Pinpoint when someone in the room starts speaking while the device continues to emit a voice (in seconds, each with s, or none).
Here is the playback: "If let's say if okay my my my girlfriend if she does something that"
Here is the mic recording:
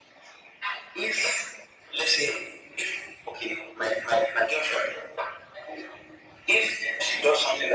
none